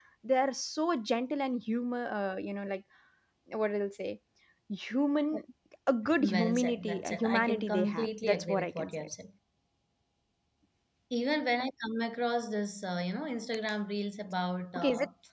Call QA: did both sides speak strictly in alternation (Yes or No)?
No